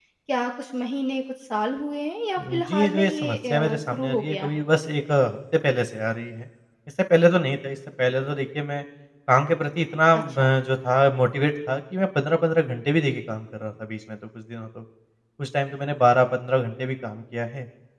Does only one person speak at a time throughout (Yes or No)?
No